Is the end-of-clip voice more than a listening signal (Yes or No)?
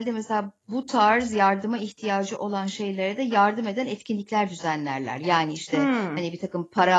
No